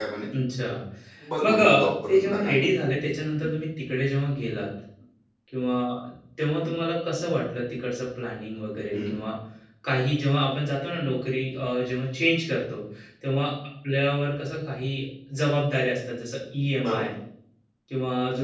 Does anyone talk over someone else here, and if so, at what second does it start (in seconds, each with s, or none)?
1.4 s